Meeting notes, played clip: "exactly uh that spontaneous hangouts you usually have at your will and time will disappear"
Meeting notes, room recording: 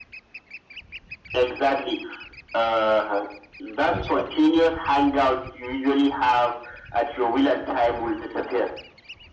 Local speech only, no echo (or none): expert.